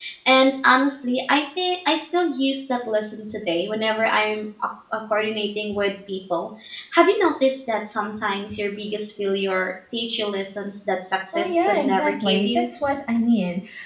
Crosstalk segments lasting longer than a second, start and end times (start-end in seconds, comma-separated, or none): 11.3-12.7